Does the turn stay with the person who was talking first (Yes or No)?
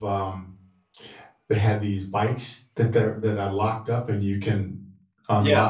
No